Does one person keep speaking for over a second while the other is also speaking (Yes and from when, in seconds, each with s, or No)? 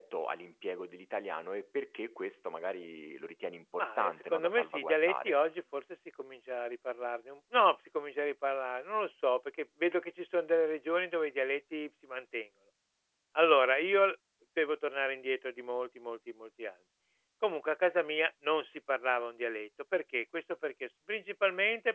Yes, from 3.8 s